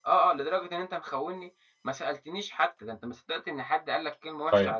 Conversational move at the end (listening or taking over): taking over